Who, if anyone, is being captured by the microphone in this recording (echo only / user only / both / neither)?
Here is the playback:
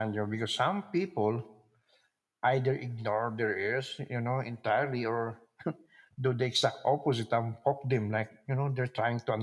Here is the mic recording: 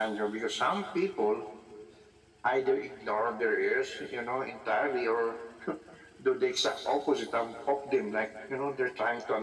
echo only